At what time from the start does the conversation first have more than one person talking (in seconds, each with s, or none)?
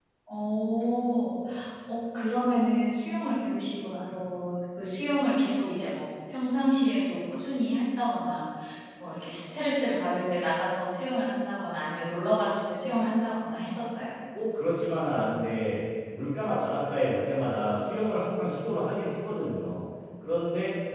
none